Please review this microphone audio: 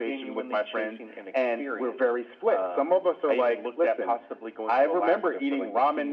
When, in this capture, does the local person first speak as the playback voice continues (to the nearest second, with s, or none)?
none